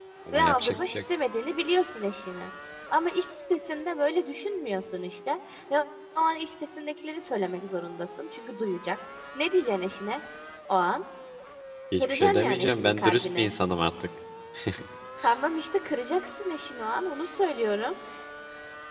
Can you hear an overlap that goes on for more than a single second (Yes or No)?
Yes